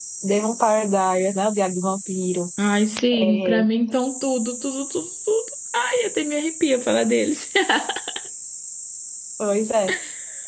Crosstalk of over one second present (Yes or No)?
No